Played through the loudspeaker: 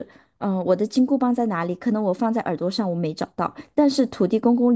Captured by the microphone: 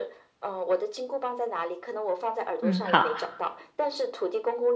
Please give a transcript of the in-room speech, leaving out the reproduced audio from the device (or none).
嗯，好，